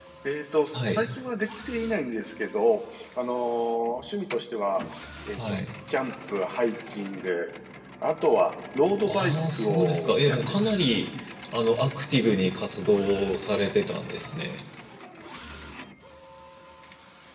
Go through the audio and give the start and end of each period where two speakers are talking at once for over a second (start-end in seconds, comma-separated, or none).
9.1-10.8